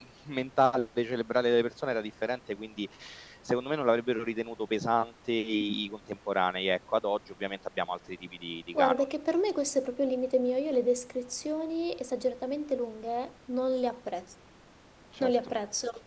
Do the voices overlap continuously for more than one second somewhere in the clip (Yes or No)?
No